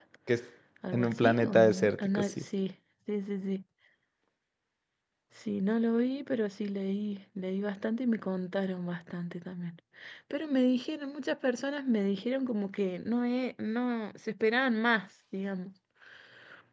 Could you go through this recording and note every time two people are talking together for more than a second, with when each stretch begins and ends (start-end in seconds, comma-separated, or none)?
0.9-2.4